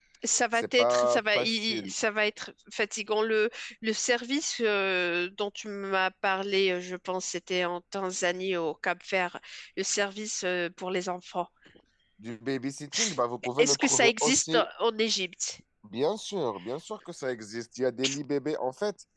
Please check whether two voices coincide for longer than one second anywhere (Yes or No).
Yes